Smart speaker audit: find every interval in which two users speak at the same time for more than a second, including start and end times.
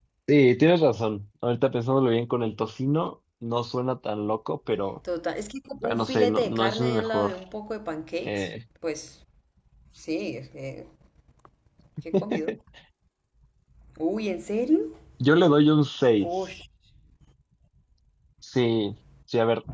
5.8-7.3

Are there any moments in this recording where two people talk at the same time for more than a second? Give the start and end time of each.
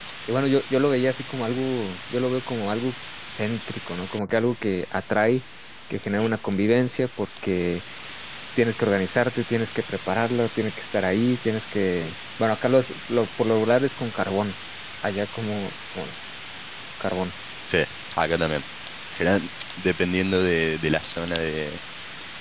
none

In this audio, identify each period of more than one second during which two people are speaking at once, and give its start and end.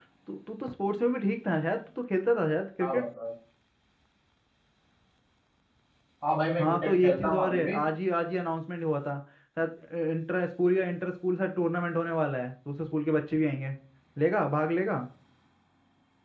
6.6-7.8

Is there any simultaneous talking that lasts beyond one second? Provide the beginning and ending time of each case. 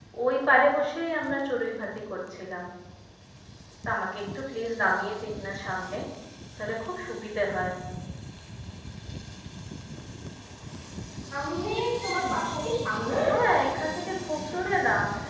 none

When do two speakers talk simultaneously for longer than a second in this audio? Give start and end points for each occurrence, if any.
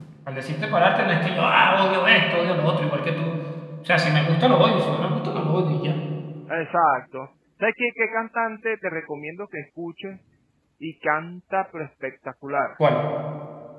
none

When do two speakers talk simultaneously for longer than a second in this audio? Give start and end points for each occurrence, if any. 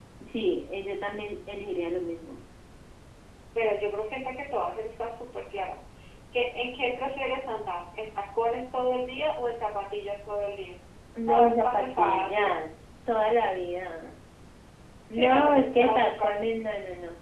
11.3-12.6, 15.1-16.5

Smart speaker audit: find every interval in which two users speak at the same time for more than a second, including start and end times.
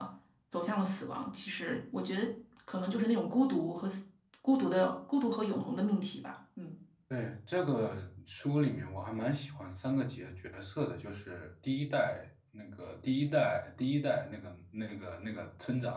none

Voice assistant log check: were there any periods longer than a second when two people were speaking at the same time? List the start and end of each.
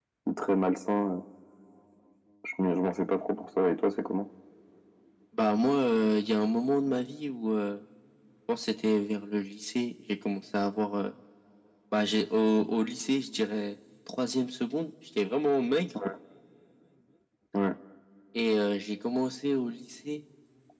none

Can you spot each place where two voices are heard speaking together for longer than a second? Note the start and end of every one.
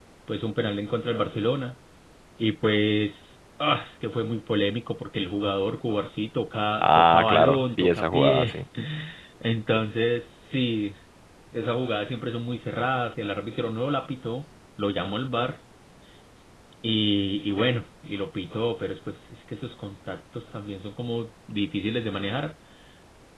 6.8-8.5

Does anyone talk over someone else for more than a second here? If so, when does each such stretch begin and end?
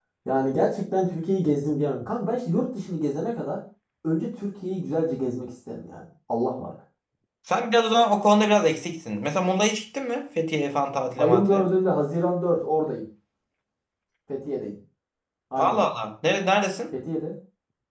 none

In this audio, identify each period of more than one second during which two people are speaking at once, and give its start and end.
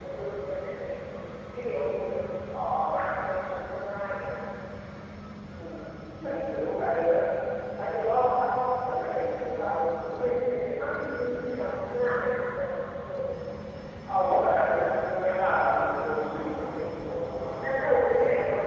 none

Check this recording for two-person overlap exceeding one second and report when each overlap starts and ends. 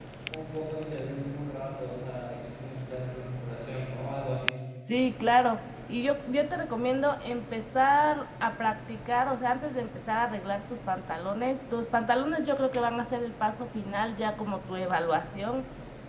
none

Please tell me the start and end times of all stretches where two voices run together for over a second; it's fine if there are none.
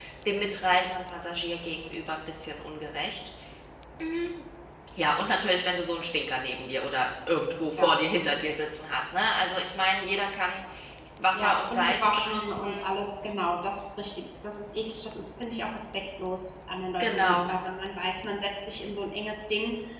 11.3-12.6

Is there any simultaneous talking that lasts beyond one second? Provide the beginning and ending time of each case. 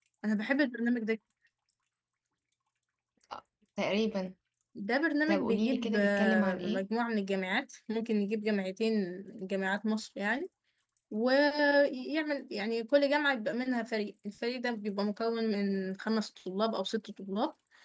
5.3-6.8

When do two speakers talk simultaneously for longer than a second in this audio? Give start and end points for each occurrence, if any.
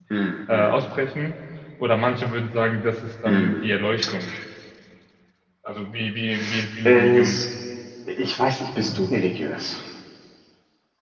none

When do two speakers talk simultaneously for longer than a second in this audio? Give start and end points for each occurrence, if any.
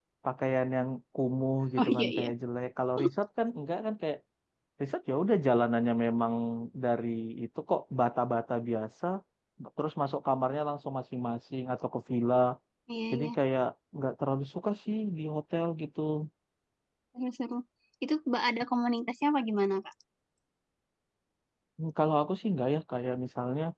none

